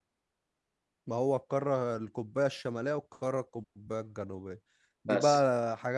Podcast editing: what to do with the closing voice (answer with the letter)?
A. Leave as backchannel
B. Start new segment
A